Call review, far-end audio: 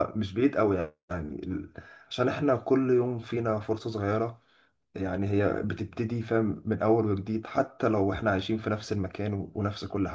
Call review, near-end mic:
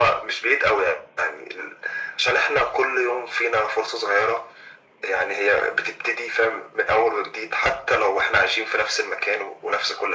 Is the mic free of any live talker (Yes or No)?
Yes